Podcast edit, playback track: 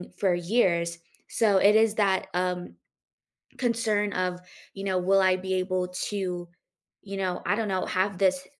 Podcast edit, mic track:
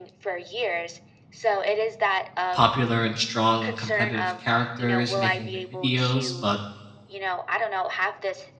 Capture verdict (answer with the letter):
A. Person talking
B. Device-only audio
A